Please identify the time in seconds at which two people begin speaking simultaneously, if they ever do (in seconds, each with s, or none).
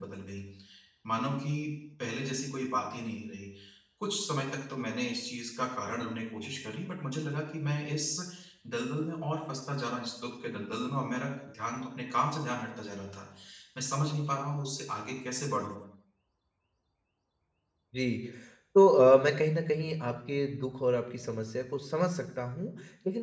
none